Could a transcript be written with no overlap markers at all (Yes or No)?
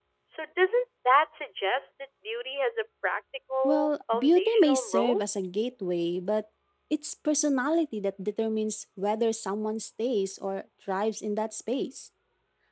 No